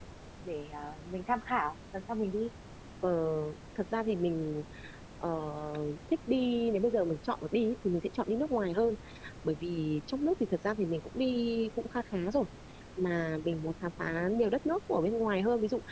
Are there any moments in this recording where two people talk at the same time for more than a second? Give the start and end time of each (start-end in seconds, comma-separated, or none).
none